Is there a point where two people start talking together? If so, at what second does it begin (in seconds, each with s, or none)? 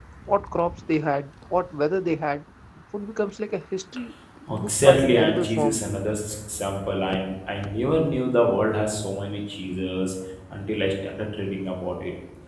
4.5 s